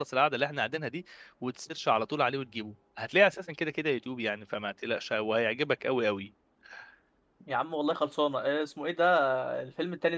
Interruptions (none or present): none